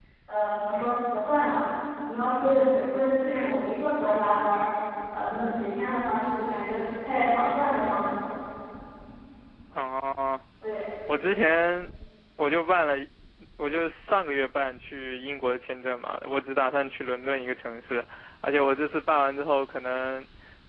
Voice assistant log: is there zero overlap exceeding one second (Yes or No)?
Yes